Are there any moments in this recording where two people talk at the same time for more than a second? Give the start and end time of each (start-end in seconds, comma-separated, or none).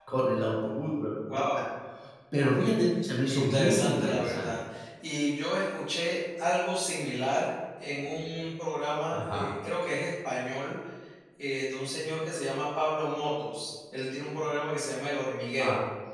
3.3-4.5